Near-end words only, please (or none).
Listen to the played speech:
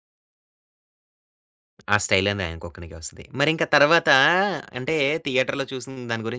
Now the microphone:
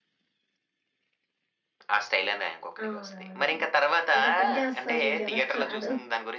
అవునవునవును. అది అతనికే వస్తదిలే ఇంకెవరికి రాదు.